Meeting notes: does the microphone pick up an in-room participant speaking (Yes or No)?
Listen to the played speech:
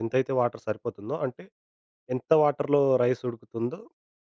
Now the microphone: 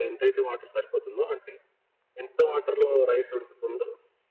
No